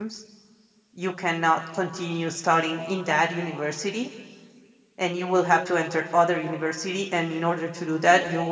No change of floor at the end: Yes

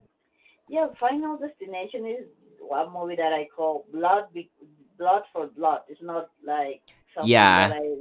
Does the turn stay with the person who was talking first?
Yes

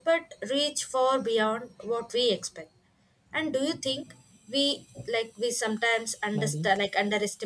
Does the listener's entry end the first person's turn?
No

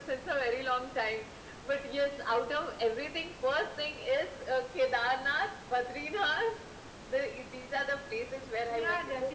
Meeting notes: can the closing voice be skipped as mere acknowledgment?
No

